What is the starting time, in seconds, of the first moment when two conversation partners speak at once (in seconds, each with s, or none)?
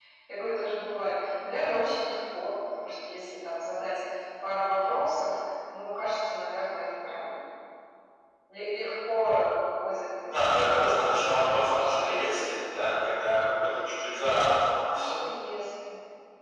10.3 s